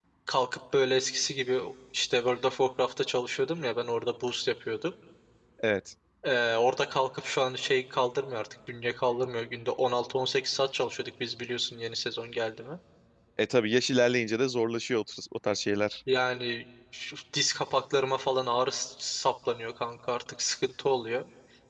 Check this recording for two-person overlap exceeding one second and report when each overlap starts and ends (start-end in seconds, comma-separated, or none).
none